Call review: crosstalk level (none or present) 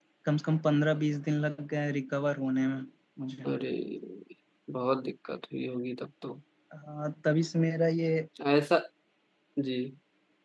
none